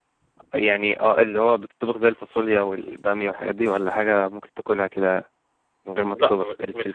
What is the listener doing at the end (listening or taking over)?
taking over